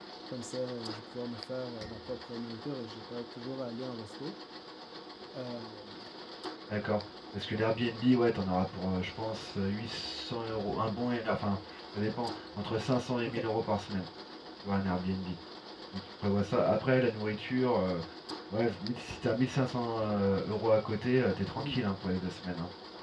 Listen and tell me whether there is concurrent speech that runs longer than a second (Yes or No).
No